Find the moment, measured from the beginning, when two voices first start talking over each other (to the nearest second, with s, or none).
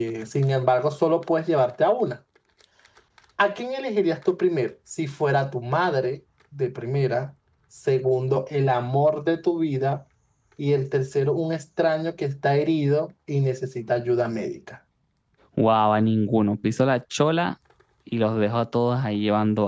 none